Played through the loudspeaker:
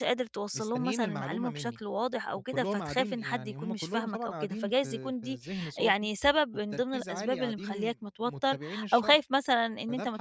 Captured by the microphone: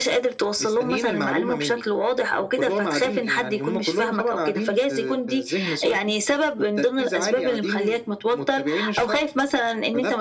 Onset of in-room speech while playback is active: none

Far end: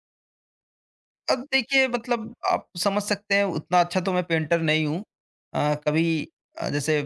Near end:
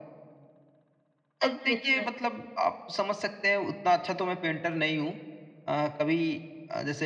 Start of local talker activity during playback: 1.4 s

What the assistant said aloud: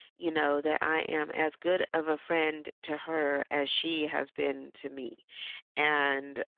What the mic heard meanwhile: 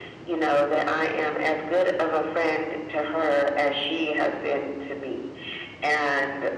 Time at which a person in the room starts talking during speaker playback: none

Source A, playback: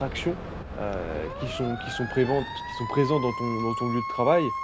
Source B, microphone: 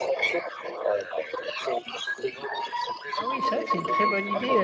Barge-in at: 3.1 s

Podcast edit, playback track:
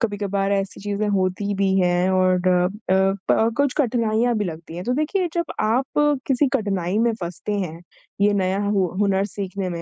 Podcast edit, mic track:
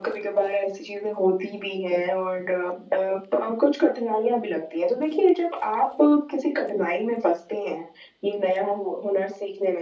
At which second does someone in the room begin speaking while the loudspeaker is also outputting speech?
none

